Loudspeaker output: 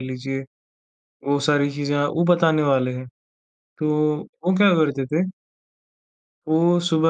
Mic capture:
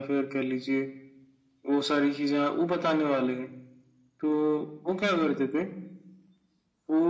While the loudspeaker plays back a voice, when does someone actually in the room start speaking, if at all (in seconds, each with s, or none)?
none